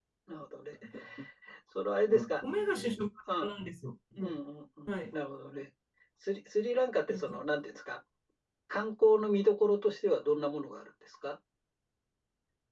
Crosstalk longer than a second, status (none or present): none